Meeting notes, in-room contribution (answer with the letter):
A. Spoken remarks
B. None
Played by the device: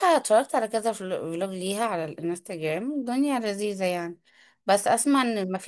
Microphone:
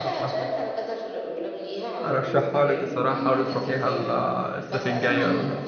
A